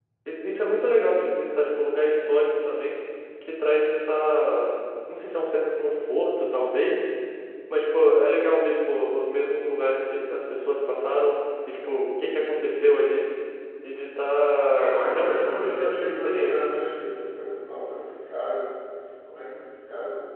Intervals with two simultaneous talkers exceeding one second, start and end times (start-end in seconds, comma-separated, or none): 14.7-16.6